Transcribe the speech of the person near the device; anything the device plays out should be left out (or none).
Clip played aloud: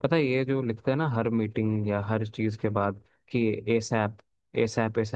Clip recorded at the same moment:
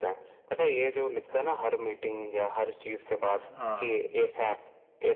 हाँ